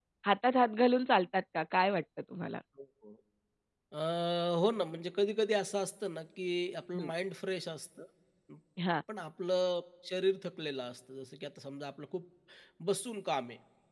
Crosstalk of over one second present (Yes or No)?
No